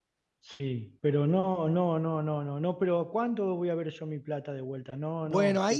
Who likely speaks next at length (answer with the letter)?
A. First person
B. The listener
B